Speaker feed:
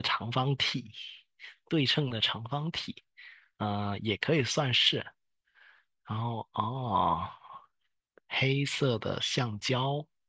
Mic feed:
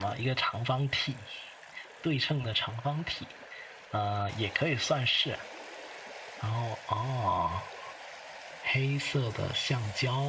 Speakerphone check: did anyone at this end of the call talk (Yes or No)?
No